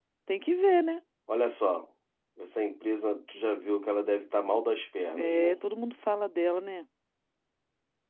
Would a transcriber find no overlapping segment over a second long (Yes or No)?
Yes